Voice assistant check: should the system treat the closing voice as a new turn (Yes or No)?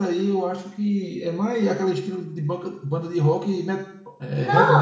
Yes